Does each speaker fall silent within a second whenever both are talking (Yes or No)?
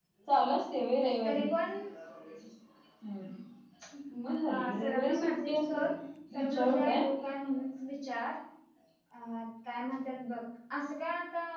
No